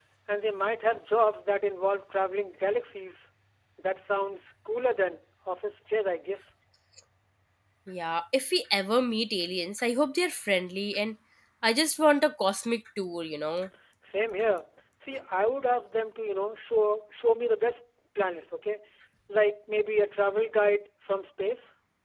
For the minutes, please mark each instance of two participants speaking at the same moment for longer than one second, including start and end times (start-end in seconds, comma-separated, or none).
none